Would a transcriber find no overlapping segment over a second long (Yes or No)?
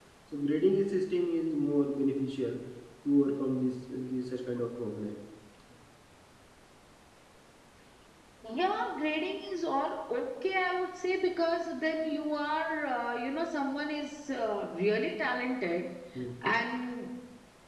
Yes